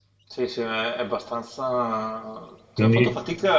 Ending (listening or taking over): listening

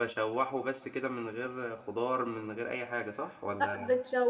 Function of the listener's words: taking over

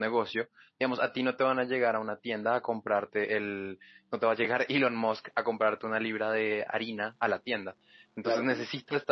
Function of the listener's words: listening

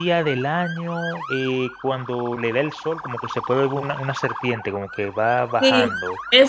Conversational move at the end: taking over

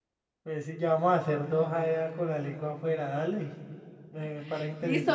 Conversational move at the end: taking over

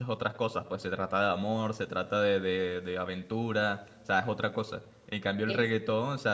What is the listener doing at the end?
listening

